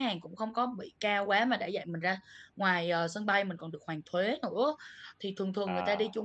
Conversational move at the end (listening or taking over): listening